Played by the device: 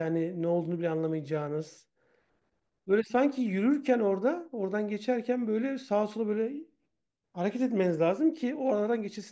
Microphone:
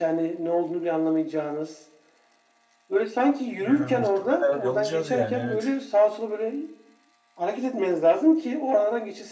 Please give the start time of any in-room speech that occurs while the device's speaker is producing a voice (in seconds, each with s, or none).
3.6 s